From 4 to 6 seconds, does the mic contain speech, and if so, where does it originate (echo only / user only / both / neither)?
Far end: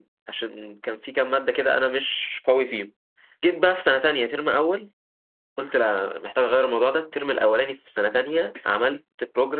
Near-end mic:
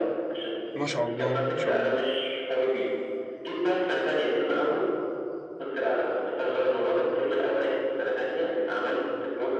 echo only